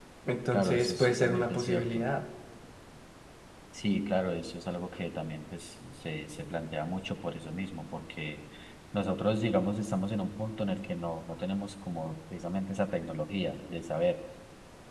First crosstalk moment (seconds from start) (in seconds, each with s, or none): 0.5 s